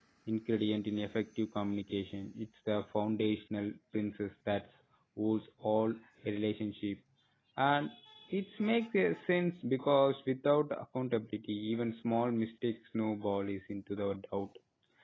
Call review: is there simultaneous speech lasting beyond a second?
No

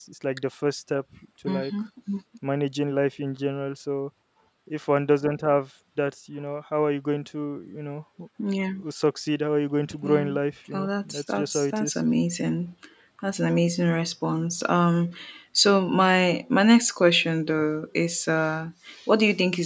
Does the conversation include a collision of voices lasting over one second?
Yes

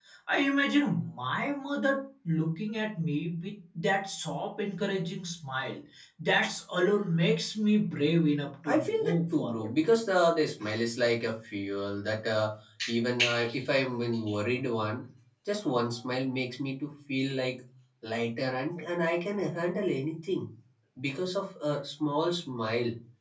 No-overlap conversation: No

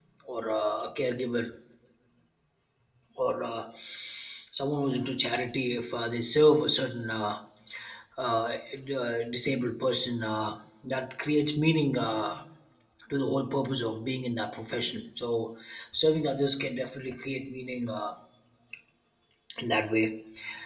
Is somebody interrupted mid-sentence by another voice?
No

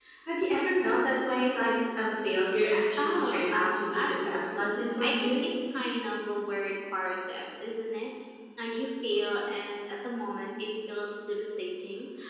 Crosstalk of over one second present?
Yes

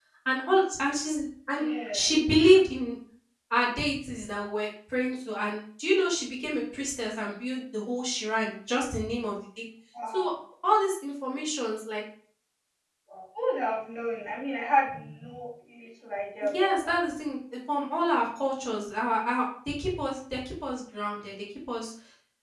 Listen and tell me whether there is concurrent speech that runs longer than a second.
No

